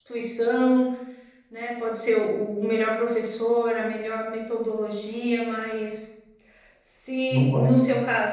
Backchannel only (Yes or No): Yes